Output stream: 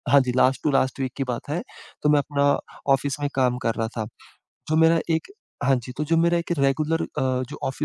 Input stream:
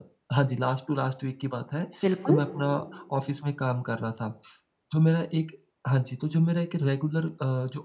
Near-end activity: present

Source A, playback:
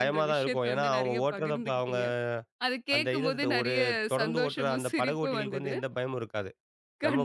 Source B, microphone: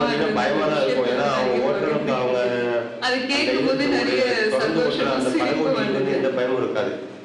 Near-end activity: none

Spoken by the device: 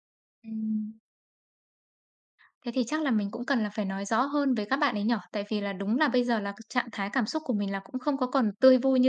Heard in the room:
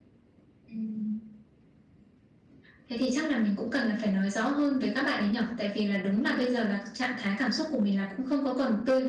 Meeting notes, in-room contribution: none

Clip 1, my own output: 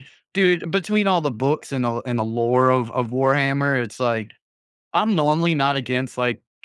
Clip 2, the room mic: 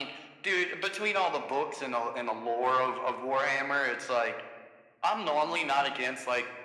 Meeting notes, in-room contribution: none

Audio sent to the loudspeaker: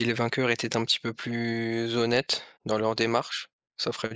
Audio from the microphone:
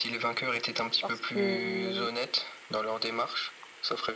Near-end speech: present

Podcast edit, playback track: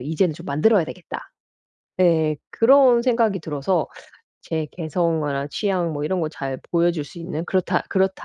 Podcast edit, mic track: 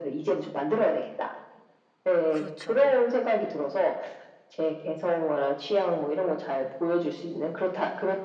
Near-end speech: present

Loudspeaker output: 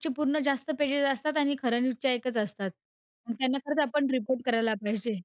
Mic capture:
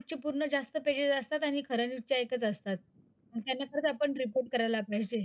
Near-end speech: none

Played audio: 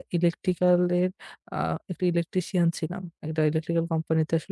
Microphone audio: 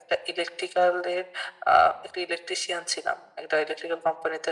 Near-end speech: none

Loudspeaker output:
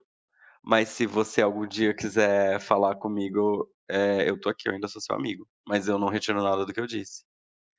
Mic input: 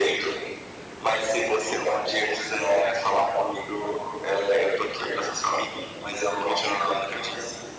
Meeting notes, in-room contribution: none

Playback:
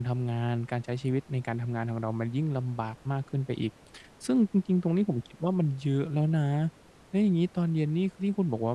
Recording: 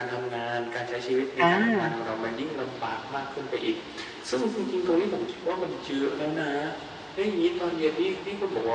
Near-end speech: present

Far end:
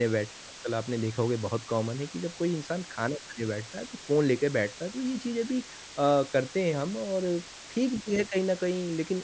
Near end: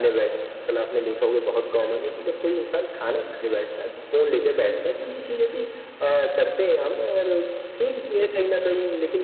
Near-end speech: none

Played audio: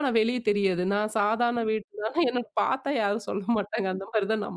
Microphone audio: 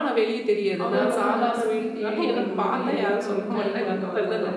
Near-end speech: present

